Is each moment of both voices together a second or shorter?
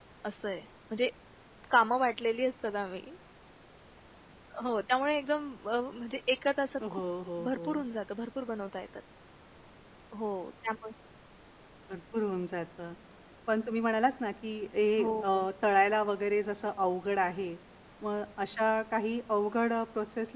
Yes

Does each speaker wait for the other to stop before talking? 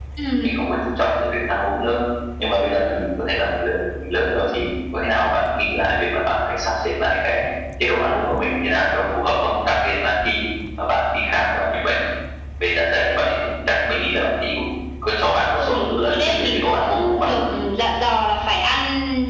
No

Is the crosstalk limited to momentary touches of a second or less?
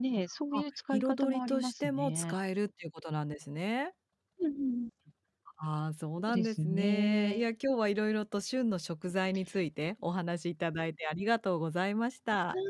No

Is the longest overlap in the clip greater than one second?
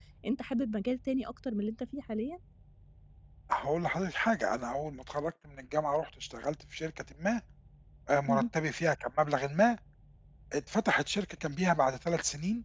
No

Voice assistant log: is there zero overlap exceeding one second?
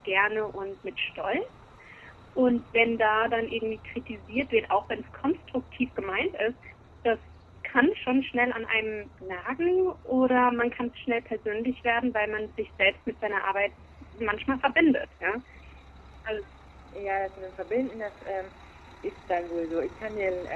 Yes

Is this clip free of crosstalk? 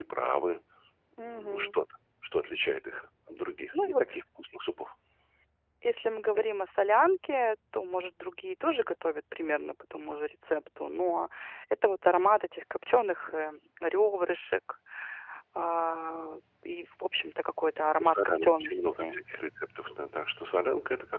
No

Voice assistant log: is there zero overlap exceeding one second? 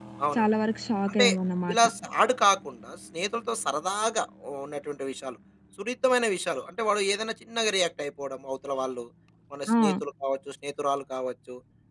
Yes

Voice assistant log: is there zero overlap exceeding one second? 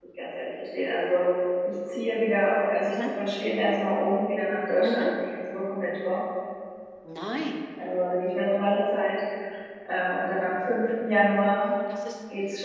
Yes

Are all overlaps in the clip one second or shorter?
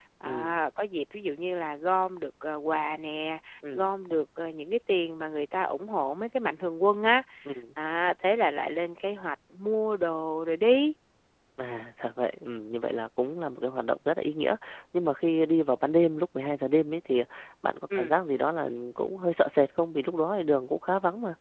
Yes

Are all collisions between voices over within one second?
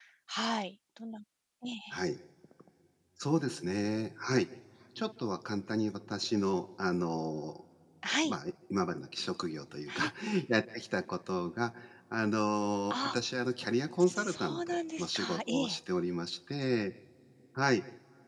No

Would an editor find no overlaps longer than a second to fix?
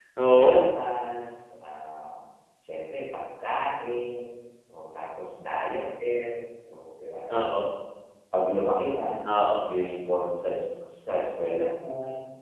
Yes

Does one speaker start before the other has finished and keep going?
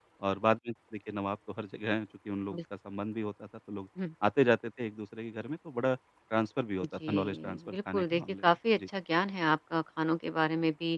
Yes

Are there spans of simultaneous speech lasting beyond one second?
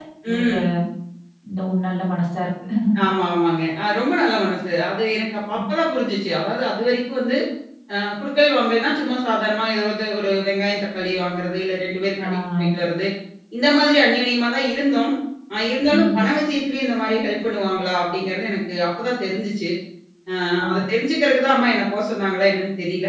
No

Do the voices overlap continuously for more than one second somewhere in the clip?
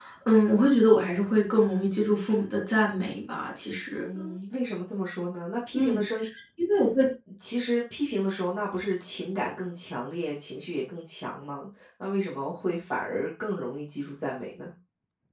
No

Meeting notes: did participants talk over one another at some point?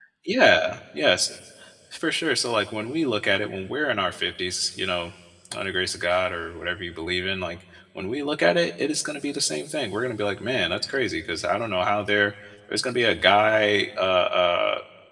No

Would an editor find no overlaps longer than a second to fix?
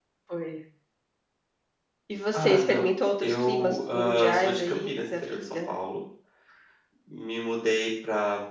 No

